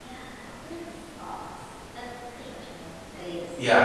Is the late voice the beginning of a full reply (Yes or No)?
Yes